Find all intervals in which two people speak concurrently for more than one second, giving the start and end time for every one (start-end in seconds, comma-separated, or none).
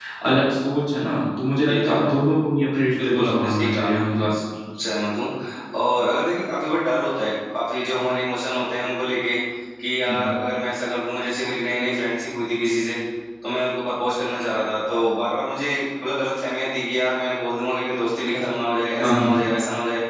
3.0-4.3